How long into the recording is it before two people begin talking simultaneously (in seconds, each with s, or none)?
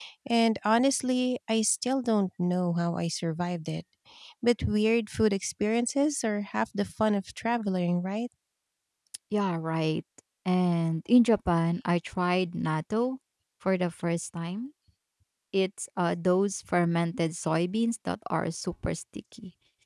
none